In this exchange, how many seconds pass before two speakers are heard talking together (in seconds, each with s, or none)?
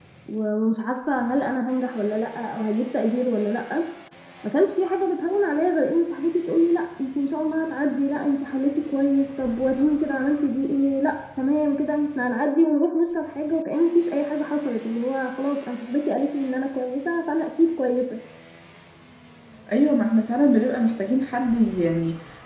none